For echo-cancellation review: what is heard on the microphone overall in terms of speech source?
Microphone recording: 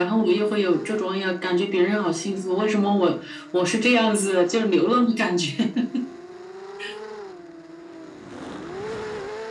echo only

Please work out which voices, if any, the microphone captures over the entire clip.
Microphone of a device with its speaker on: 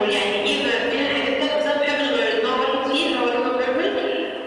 echo only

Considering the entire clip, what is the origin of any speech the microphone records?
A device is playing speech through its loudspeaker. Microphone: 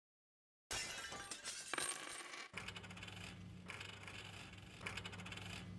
neither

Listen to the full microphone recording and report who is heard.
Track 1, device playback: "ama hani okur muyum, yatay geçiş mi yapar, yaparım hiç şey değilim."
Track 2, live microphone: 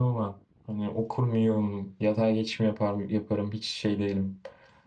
echo only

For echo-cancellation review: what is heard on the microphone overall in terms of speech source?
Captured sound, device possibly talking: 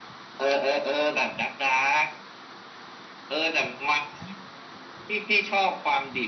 echo only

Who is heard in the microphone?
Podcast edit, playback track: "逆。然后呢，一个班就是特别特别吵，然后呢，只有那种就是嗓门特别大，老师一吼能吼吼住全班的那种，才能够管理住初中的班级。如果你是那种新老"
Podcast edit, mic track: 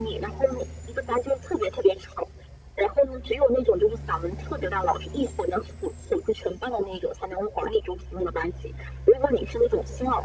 echo only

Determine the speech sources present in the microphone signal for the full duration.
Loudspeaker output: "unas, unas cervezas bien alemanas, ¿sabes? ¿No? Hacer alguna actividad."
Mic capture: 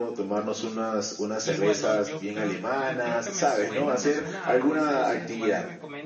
both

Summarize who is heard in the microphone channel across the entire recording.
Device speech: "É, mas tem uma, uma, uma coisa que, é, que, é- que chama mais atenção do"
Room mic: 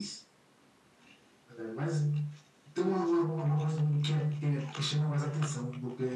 echo only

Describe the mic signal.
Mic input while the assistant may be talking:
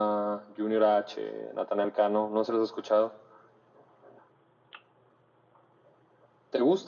echo only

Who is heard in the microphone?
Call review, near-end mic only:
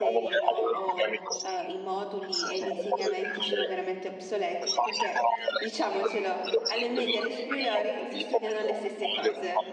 both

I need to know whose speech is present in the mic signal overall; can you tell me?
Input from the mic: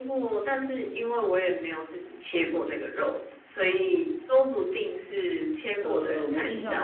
both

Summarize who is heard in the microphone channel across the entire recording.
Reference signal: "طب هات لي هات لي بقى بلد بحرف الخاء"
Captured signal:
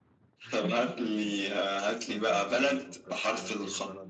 both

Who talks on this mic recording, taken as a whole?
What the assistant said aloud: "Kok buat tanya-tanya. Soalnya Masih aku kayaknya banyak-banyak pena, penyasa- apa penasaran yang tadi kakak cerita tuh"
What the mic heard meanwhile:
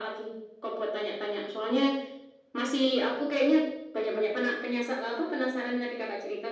echo only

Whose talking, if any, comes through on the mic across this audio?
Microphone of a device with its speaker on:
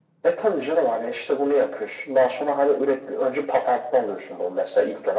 echo only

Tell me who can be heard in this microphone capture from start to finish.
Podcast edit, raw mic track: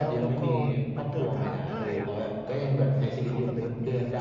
both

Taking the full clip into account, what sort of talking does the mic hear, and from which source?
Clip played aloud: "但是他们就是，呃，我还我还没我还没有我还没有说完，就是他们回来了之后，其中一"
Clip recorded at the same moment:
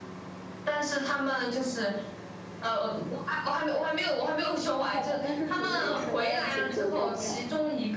both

